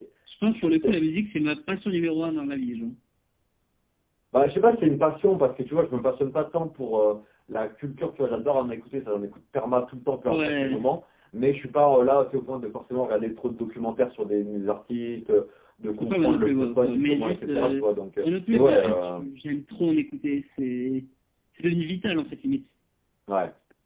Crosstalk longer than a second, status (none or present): present